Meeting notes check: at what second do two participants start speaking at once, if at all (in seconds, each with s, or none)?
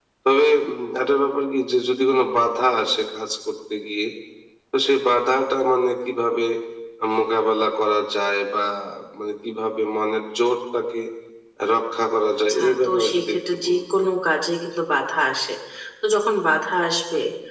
12.5 s